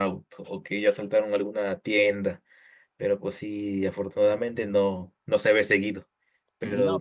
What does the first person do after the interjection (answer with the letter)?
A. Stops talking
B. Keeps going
B